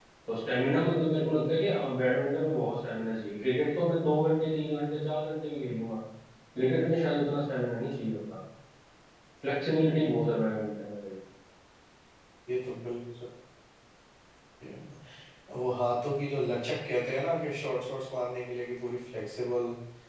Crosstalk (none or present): none